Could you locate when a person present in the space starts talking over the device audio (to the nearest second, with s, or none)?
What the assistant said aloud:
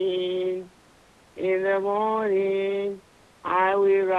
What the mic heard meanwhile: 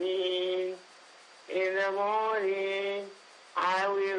none